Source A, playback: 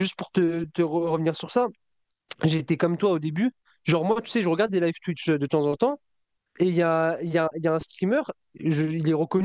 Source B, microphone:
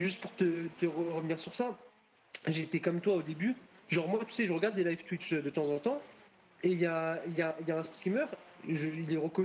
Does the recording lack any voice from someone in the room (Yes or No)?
Yes